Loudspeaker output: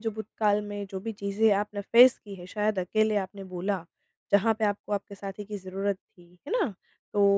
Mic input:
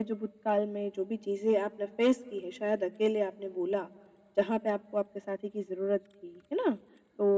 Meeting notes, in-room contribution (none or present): none